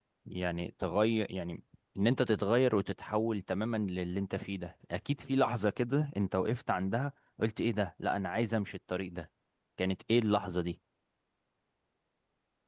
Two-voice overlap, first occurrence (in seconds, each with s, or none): none